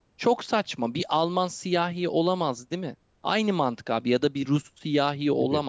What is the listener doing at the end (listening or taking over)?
listening